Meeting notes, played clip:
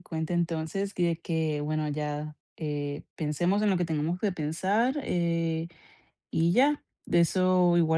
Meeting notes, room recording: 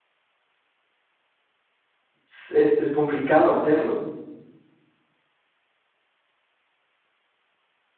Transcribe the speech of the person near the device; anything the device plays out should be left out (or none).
s es es complicado hacerlo.